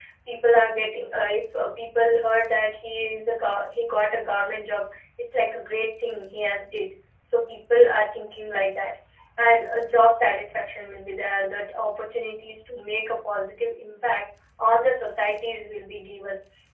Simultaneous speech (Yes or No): No